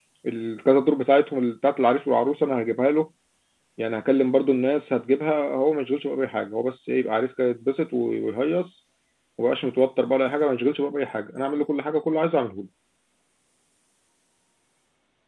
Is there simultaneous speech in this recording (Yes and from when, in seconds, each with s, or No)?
No